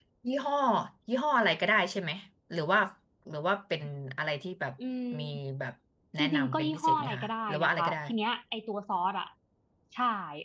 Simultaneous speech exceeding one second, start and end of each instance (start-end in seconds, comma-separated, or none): 6.2-8.0